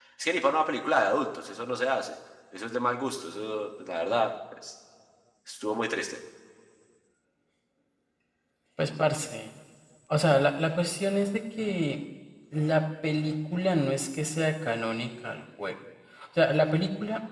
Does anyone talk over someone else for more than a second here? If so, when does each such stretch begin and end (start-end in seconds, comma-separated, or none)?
none